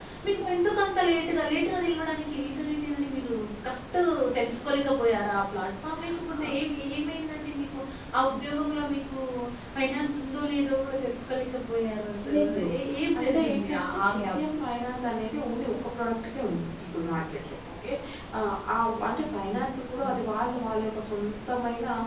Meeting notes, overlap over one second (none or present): present